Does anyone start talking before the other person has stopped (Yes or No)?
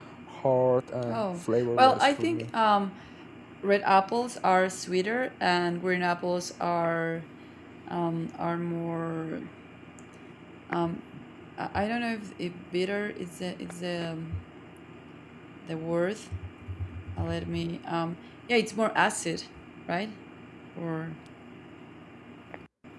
Yes